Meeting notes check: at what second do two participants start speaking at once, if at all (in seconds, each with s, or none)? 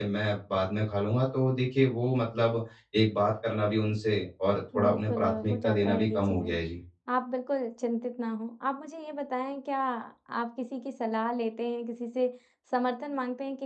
4.7 s